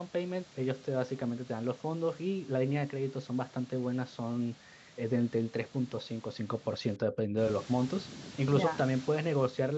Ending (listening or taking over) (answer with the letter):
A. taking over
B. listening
B